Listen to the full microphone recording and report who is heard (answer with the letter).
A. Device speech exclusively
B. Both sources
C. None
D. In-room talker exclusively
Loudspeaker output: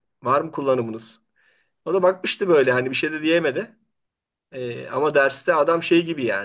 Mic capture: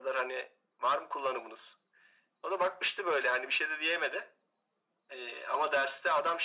A